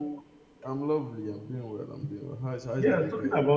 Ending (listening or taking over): taking over